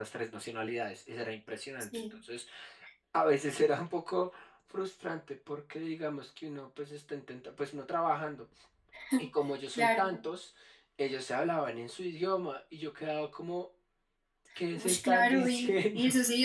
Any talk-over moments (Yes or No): Yes